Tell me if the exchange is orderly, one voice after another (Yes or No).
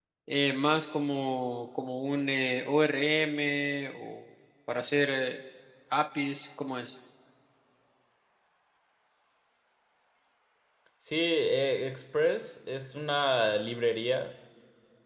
Yes